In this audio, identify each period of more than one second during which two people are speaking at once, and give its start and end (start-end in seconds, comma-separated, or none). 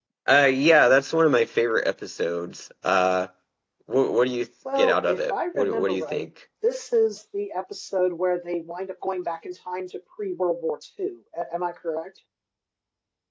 4.8-6.2